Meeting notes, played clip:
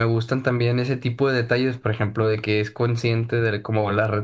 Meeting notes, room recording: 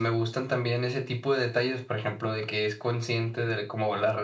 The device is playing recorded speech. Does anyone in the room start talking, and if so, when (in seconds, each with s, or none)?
none